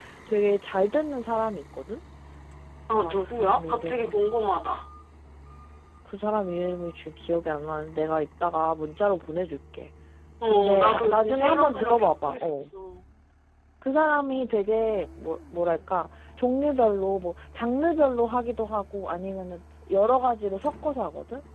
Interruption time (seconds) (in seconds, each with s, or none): 3.0 s